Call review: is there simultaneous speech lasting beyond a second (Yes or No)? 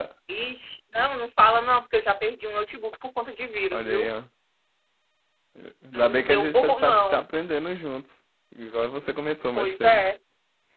Yes